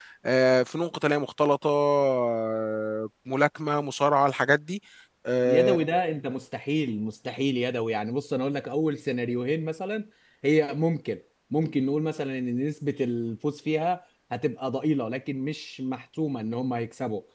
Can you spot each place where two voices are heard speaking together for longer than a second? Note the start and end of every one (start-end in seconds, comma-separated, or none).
none